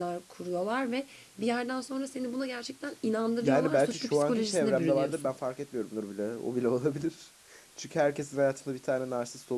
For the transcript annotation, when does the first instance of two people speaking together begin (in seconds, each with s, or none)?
3.4 s